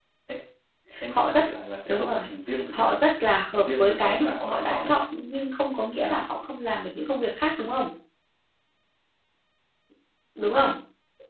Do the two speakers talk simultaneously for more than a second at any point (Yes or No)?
Yes